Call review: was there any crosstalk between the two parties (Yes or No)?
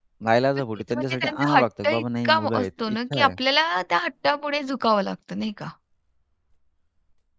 Yes